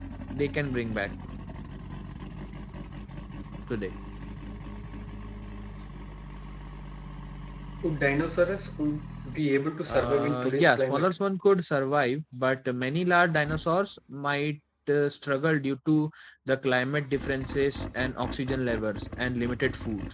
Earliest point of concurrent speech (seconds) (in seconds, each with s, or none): 9.9 s